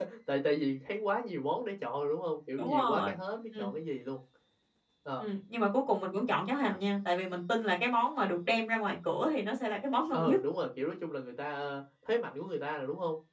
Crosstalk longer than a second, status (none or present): none